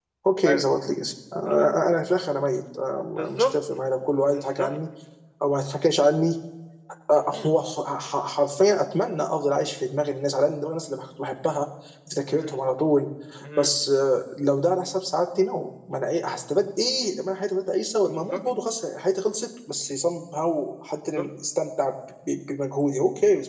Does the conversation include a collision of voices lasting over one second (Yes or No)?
No